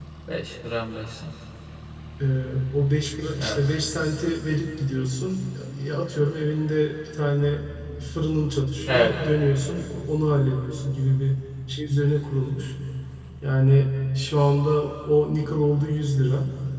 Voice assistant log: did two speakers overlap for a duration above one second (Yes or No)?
No